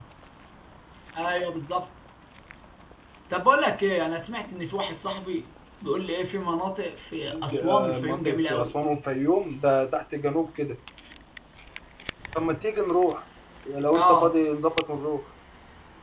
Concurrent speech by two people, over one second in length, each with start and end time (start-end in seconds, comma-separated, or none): 7.3-8.7